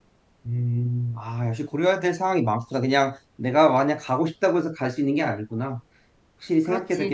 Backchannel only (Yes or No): No